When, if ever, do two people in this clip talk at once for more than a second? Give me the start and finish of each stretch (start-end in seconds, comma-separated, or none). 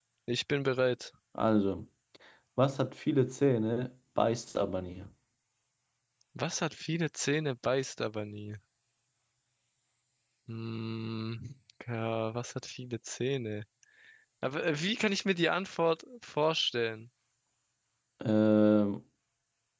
none